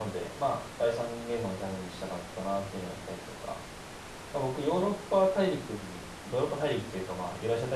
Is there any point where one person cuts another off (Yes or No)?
No